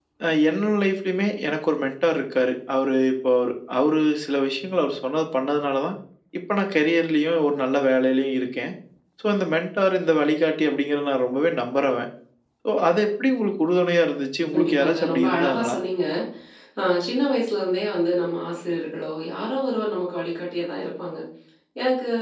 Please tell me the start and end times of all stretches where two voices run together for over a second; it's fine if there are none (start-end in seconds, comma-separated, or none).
14.5-15.8